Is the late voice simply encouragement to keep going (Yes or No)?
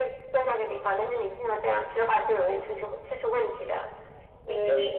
Yes